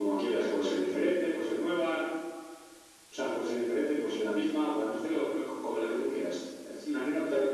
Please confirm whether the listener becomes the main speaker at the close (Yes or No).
Yes